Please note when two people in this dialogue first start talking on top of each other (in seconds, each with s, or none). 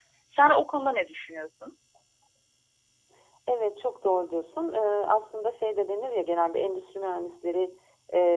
none